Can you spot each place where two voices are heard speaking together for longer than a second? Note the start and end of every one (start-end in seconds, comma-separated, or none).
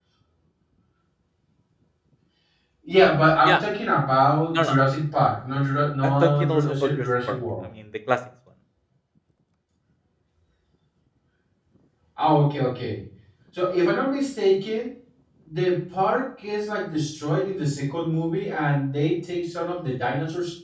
6.0-7.4